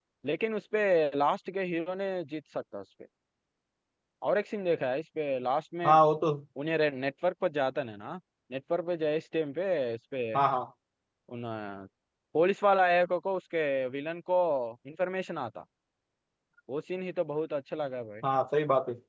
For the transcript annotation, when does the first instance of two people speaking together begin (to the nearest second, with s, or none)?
none